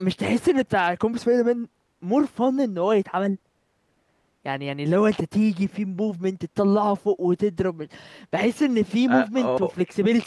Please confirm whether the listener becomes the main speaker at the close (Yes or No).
No